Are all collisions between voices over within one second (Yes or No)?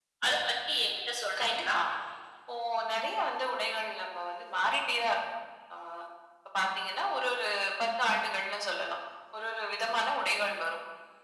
Yes